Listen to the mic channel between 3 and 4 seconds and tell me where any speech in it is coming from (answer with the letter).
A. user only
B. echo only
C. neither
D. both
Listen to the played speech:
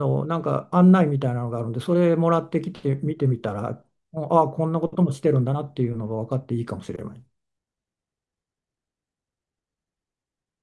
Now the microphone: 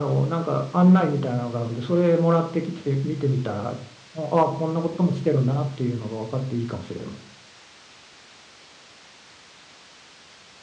B